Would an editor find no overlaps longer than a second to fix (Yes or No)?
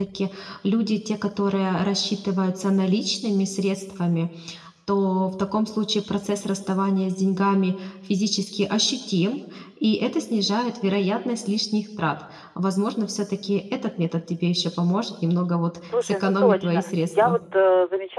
No